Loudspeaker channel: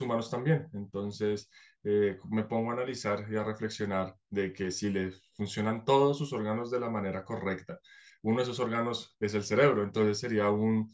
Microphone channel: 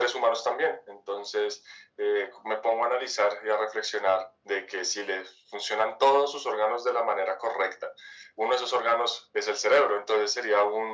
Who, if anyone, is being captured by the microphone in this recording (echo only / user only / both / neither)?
echo only